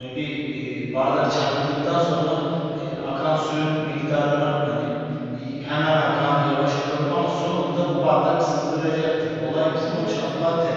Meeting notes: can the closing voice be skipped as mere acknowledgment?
Yes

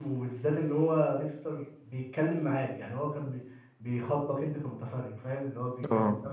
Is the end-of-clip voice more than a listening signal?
No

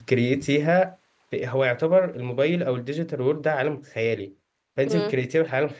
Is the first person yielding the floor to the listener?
No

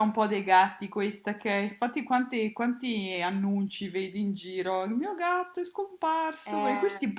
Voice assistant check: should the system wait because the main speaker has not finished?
Yes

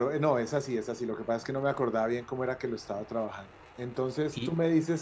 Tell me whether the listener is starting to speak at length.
No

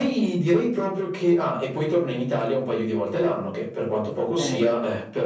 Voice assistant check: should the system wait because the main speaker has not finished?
Yes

